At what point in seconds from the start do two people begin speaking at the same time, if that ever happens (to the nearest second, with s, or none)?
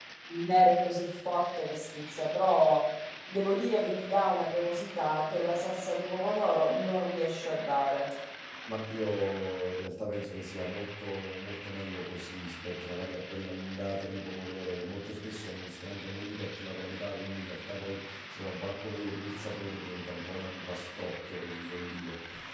none